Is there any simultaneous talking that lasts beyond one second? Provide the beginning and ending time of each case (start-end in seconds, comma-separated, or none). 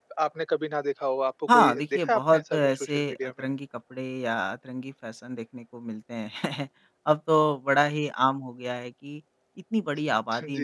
1.5-3.3